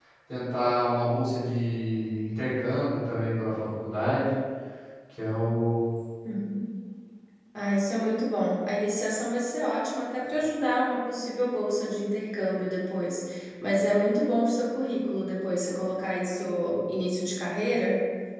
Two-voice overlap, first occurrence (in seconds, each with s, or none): none